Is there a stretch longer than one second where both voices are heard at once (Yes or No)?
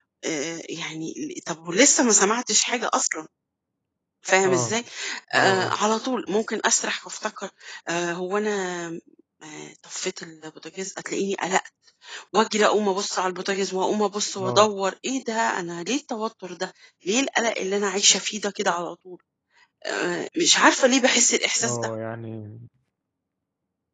No